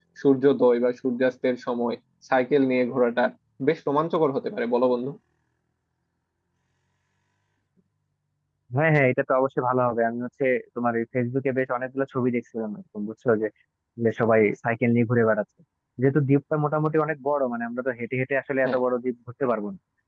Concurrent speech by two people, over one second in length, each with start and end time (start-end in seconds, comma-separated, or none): none